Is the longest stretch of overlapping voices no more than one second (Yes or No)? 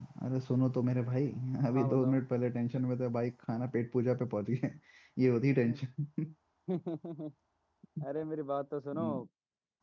Yes